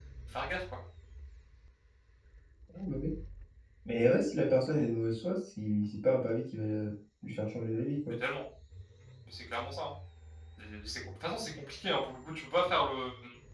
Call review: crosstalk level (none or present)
none